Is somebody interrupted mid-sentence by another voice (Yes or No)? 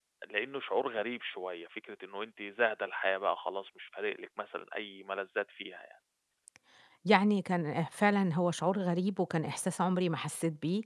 No